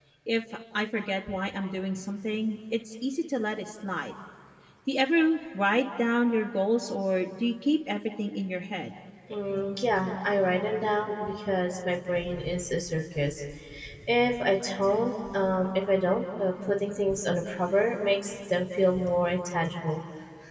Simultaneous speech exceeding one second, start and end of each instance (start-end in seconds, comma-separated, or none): none